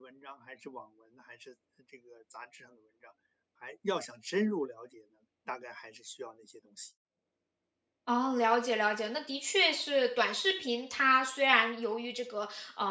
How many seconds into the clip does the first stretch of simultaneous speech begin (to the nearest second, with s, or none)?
none